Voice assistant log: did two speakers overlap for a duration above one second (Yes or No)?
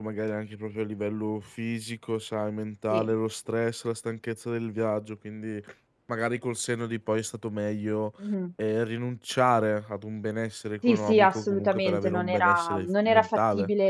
Yes